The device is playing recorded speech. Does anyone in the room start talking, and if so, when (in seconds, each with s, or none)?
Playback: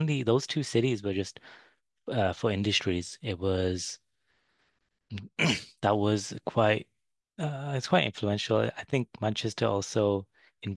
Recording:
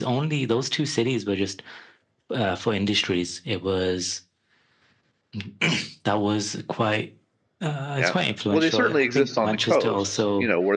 8.0 s